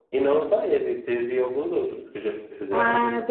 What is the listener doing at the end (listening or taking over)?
taking over